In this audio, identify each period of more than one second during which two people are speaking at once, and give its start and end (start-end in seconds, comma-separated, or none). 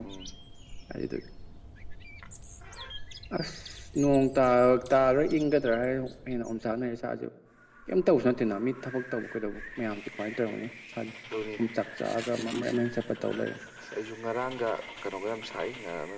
none